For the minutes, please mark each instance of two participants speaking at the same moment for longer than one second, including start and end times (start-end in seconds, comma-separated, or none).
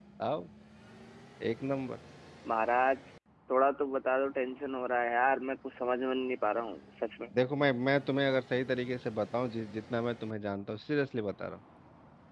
none